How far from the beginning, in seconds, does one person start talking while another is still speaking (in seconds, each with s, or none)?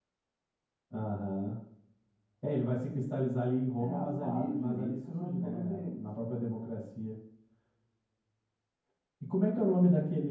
3.8 s